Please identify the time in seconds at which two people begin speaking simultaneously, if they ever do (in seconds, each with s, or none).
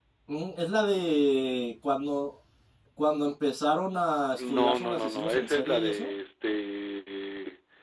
4.4 s